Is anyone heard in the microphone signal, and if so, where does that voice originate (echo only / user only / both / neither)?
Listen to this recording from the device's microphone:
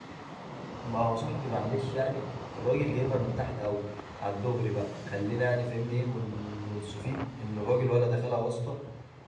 user only